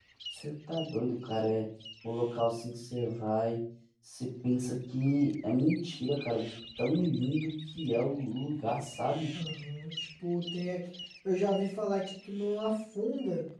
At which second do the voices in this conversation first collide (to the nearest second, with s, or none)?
none